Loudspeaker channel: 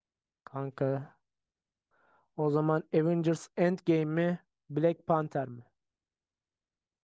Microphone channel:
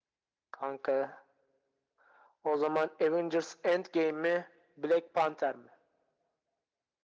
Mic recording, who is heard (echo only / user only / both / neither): echo only